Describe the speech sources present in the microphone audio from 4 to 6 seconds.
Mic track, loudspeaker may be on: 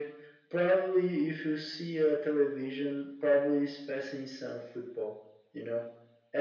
echo only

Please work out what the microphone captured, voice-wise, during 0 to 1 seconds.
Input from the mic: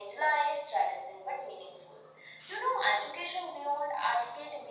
echo only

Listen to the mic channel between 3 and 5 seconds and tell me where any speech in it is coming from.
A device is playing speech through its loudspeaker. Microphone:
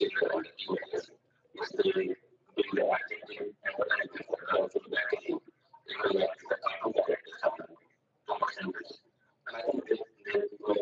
echo only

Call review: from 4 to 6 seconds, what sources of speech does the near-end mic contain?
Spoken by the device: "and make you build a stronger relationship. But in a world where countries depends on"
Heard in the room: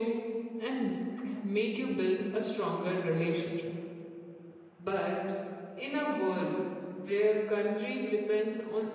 echo only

